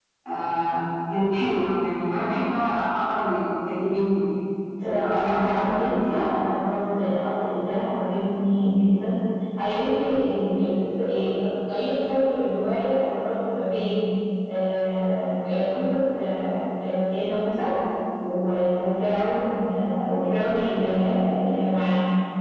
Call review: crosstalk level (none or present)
present